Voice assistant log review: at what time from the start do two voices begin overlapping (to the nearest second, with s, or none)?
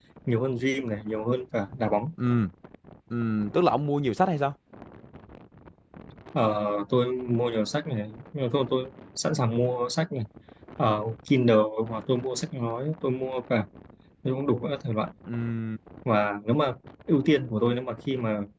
none